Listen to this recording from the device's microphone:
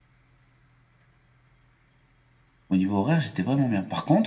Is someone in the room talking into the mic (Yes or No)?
Yes